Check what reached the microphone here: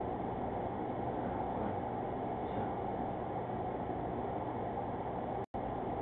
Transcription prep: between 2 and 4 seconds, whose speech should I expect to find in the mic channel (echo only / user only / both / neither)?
neither